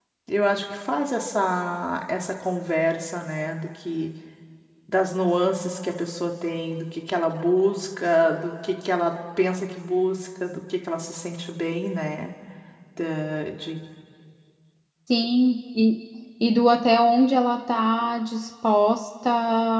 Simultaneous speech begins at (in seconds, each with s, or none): none